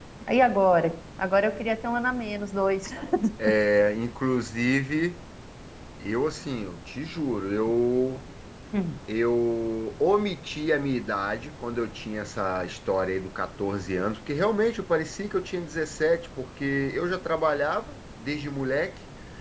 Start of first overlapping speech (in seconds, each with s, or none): none